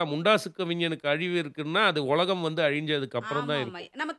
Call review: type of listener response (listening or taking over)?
taking over